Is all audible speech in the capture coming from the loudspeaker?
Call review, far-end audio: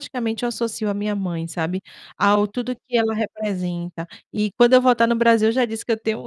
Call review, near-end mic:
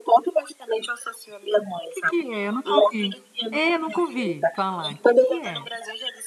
No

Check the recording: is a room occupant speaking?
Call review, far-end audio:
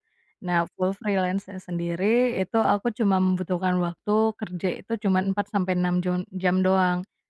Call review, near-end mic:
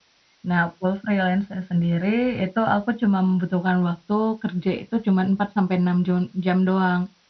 No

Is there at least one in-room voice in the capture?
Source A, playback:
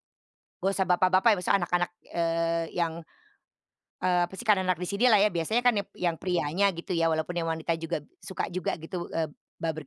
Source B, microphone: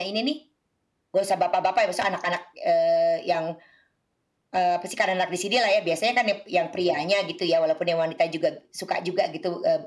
No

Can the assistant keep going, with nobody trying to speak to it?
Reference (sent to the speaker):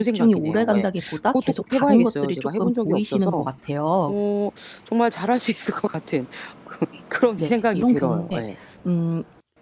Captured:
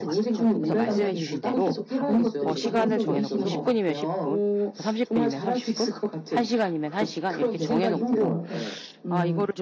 No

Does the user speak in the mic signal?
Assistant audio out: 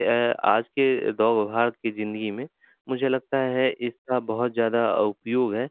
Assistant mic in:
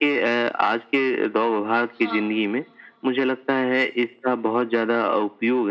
Yes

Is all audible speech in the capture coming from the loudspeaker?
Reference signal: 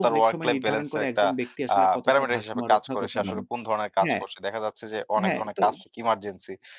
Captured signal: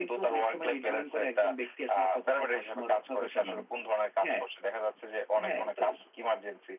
Yes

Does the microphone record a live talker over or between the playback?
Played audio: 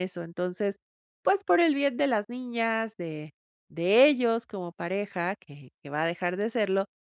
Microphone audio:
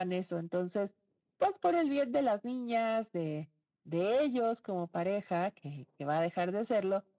No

